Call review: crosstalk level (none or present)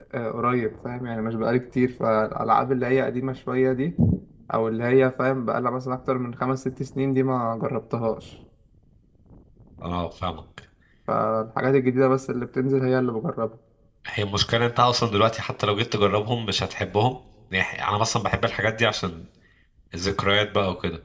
none